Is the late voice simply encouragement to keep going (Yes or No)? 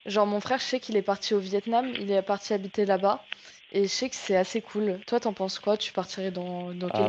No